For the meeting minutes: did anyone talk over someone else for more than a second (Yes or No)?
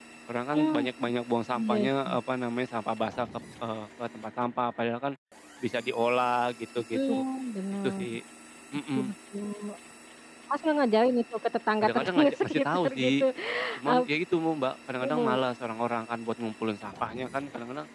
Yes